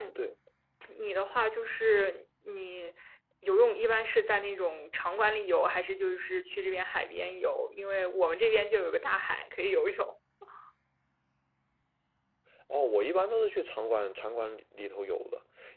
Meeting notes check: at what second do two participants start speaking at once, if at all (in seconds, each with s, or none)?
none